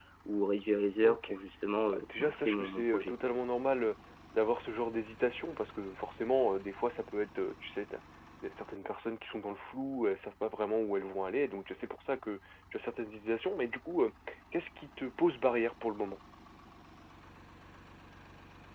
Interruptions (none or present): present